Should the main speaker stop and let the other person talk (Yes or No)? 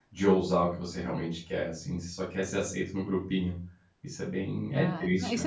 Yes